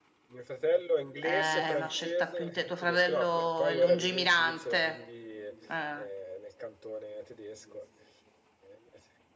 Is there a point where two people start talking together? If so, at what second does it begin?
1 s

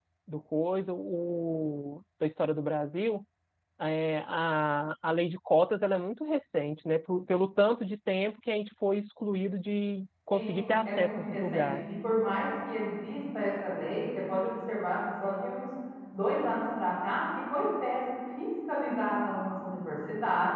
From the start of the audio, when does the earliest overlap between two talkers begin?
10 s

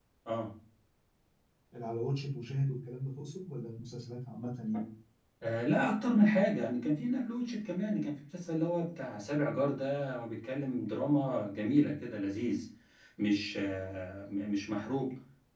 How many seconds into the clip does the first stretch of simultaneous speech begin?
none

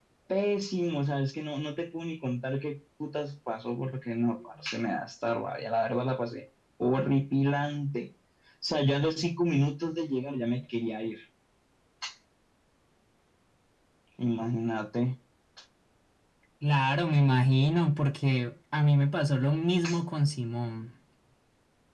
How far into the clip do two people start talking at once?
none

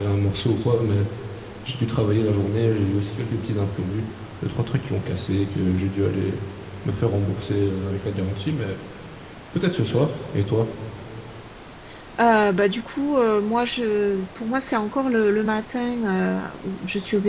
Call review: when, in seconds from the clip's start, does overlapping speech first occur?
none

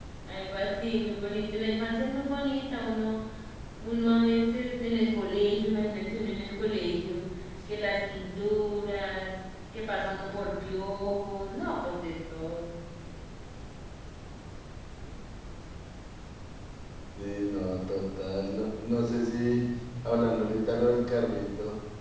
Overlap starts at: none

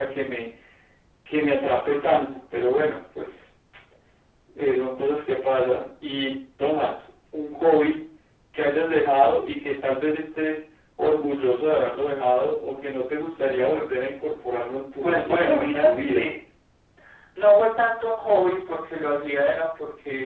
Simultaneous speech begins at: 15 s

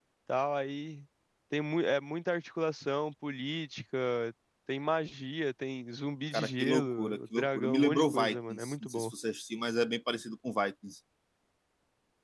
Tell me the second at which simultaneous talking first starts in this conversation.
6 s

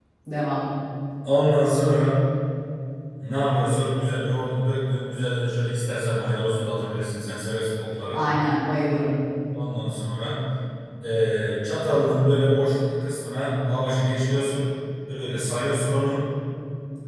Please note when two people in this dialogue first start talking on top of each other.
none

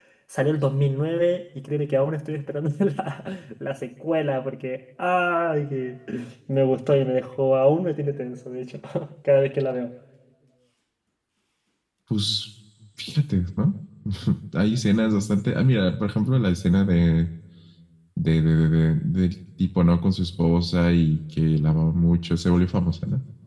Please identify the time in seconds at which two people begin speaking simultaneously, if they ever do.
none

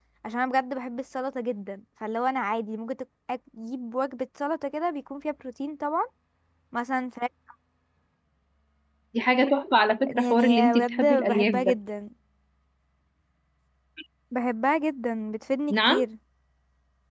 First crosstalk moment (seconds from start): 10 s

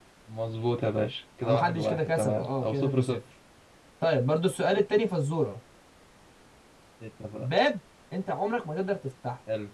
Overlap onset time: 1 s

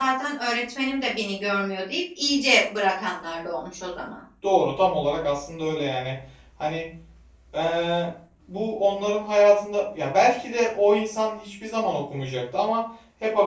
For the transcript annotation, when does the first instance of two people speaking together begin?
none

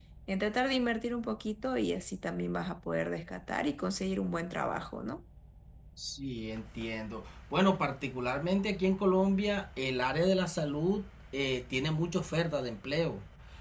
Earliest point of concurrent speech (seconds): none

